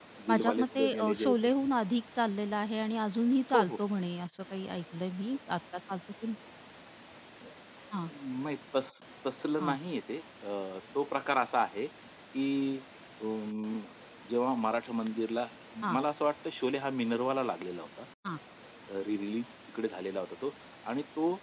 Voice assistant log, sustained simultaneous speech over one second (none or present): present